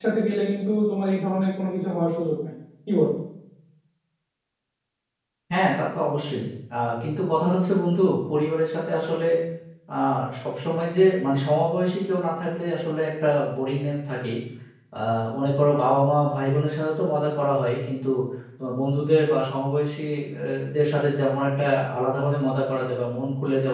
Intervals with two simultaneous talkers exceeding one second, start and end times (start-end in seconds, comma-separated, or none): none